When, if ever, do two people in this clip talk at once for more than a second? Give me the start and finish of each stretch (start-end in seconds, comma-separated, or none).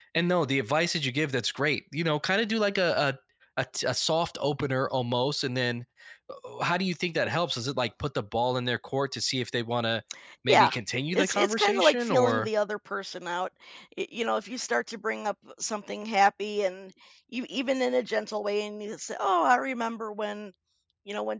11.1-12.5